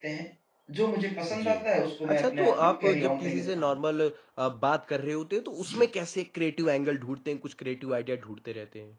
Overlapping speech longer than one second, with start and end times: 2.1-3.7

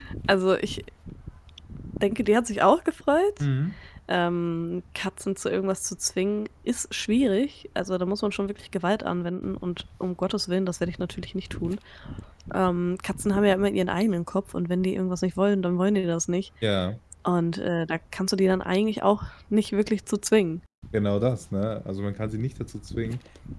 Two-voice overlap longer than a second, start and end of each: none

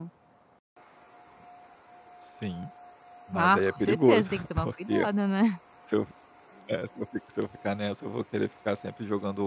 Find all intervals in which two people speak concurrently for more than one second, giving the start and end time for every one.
3.3-5.1

